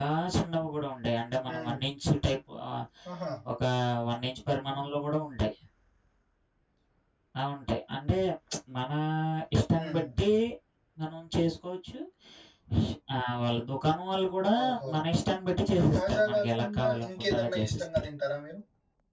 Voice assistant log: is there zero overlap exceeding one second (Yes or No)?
No